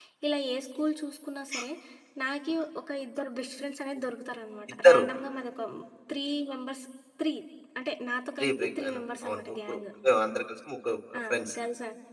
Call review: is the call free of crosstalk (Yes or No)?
No